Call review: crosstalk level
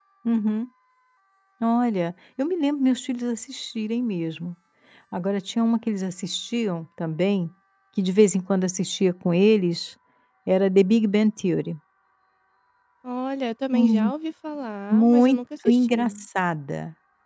present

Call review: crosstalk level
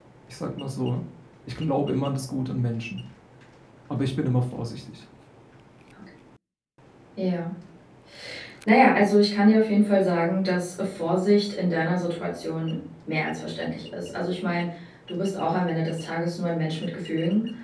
none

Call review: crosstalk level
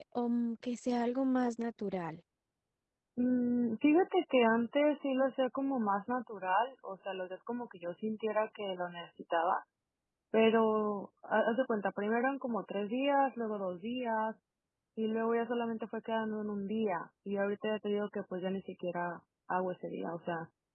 none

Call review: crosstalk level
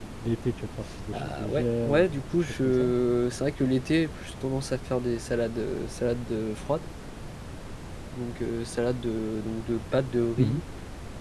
present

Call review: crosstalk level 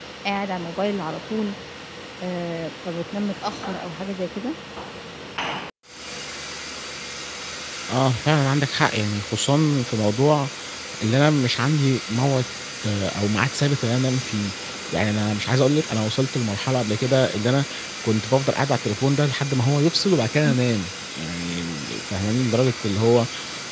none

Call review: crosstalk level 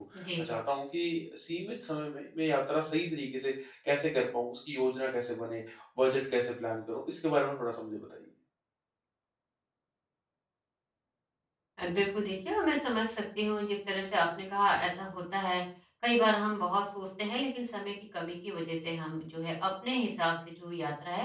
none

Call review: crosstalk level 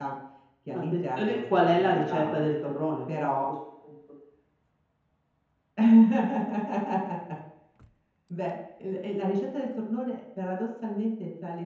present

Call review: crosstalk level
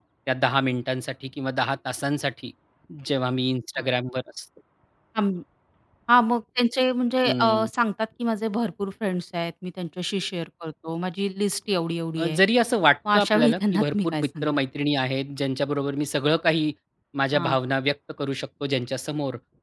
present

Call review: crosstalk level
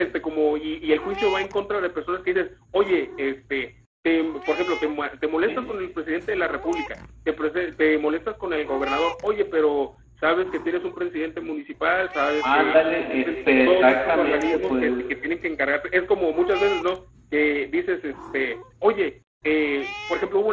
present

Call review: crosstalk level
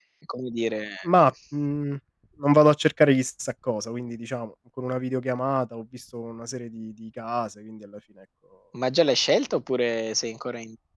none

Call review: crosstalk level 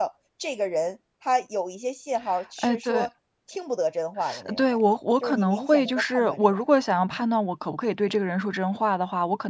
present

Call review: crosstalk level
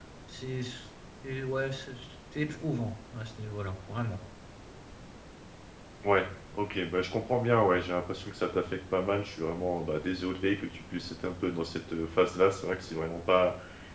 none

